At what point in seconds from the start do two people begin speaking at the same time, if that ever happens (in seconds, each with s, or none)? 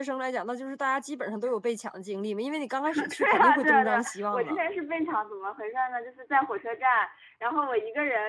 2.8 s